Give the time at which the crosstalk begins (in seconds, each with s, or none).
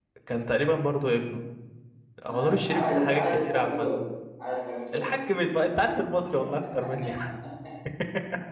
2.3 s